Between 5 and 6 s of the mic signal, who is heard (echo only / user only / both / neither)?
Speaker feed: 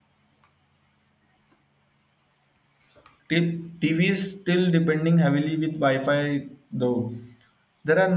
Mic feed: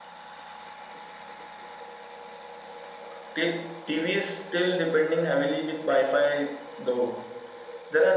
echo only